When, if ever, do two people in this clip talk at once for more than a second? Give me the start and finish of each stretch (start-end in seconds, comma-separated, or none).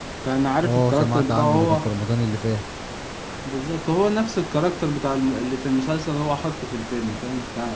0.6-1.9